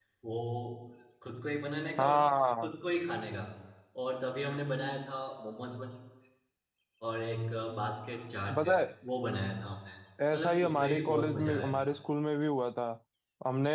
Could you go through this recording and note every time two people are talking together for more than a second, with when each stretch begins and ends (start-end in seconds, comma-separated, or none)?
10.3-11.9